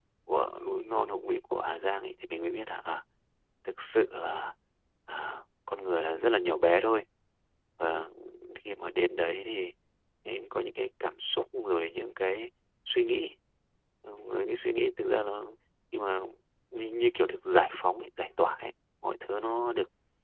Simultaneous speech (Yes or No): No